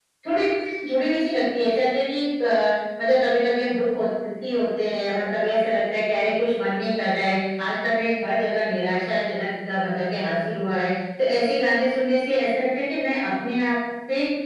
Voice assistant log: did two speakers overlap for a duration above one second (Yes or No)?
No